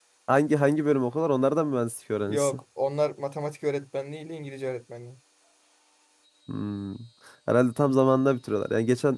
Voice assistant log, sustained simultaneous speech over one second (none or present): none